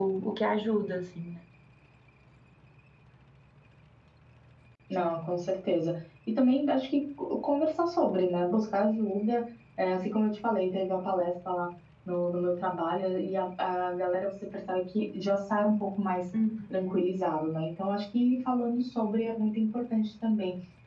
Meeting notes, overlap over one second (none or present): none